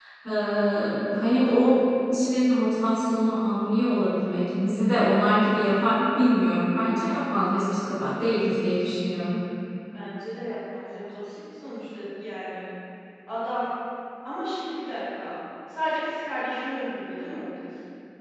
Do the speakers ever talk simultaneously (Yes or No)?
No